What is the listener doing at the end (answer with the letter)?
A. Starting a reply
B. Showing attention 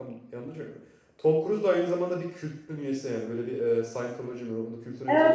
A